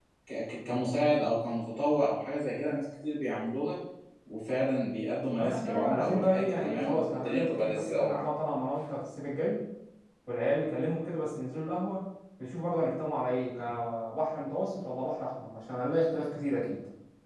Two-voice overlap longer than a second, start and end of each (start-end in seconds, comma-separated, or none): 5.4-8.2